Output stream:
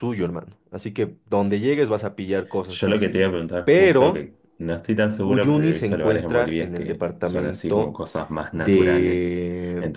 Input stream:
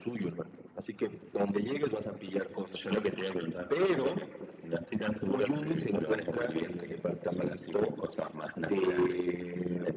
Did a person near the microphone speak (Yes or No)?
No